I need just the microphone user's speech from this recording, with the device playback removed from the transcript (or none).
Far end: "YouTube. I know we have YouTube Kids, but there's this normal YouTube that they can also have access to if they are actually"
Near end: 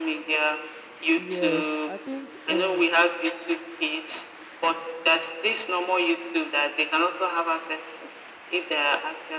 Yes, I think um